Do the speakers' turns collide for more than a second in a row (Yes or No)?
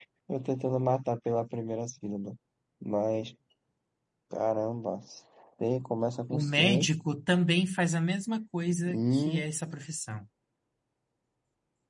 No